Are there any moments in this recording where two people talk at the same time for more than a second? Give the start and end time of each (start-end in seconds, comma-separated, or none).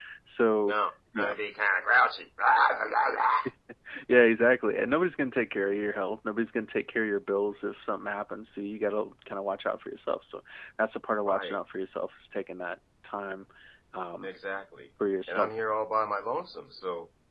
none